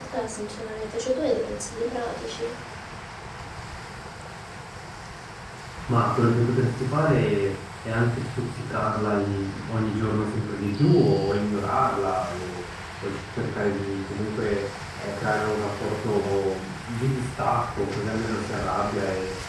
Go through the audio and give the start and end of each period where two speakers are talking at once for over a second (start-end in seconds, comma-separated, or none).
none